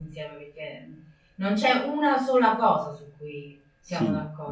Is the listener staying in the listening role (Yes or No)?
No